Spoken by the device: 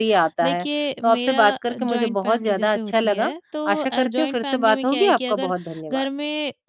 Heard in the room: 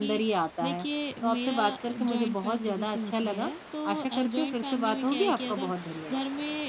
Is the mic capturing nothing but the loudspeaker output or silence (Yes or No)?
Yes